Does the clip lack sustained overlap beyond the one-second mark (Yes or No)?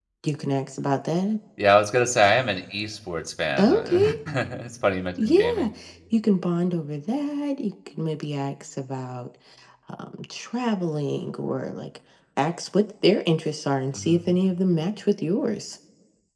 Yes